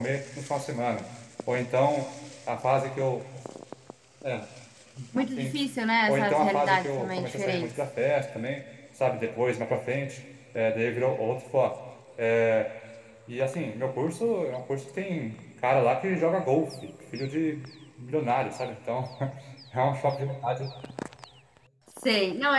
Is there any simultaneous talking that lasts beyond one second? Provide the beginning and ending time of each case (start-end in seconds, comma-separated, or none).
6.1-7.7